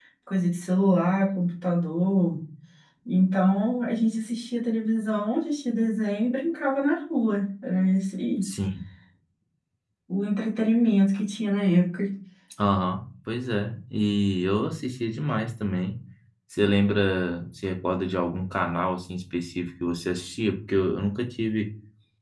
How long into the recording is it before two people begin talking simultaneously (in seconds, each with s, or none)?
none